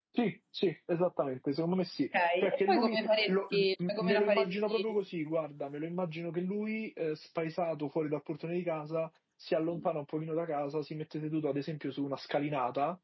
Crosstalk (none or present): present